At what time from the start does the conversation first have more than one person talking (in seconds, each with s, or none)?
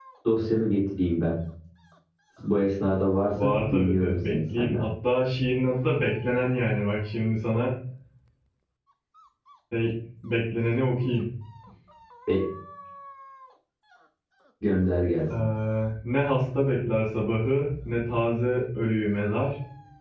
3.3 s